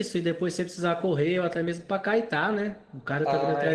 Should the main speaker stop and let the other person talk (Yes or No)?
Yes